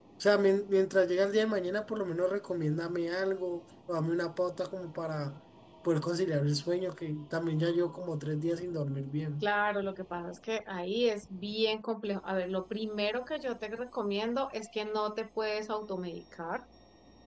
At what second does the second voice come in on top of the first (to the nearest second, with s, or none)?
none